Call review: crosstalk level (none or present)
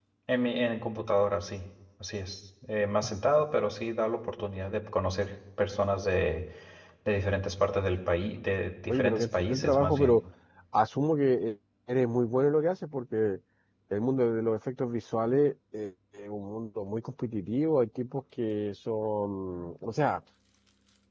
present